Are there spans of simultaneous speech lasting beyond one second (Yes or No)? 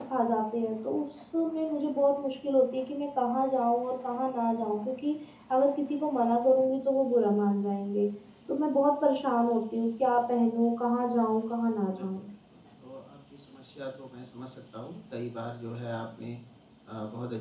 No